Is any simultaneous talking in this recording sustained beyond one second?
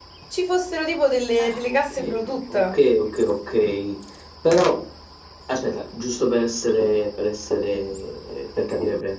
Yes, from 1.4 s

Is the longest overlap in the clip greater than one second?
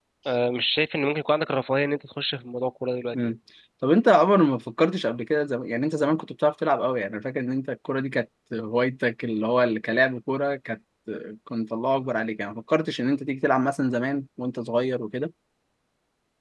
No

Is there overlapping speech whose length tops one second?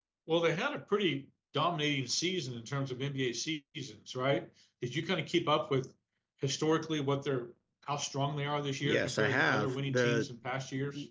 Yes, from 8.8 s

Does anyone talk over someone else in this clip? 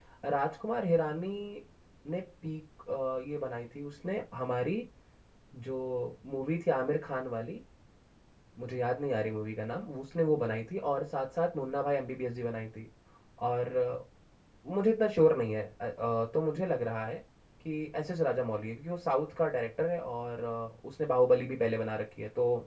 No

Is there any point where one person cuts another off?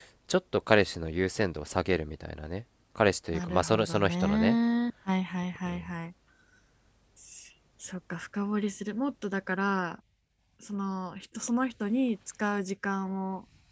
Yes, from 3.3 s

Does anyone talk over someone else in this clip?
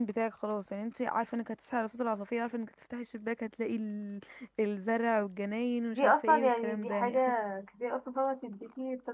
Yes, from 5.9 s

